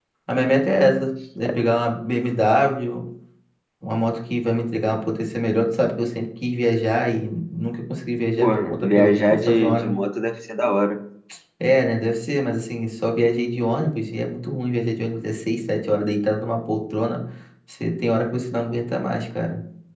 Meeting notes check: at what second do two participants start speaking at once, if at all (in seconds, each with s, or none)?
8.4 s